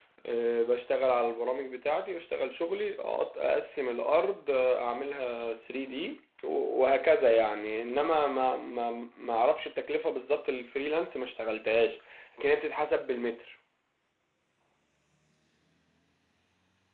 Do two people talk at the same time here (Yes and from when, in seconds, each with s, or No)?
No